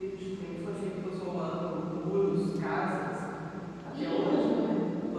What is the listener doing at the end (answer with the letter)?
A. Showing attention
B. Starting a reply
B